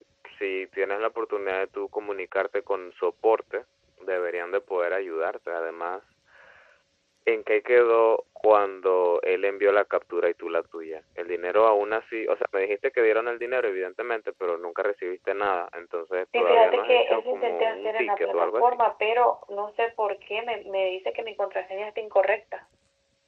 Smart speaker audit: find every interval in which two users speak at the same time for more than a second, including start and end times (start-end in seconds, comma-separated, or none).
16.4-18.8